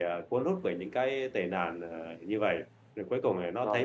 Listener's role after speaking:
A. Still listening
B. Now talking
B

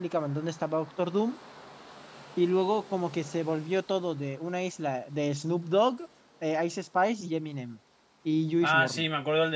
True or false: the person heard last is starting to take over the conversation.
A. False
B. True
B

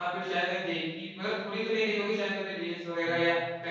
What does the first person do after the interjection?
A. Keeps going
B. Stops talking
A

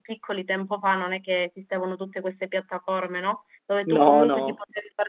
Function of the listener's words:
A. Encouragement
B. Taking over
A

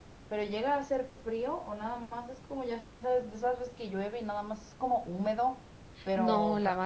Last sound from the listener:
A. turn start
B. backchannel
A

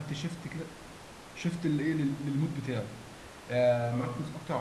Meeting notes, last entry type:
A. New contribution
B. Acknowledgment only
B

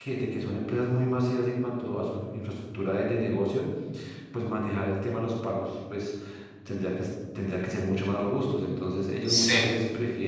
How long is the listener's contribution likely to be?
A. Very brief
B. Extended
A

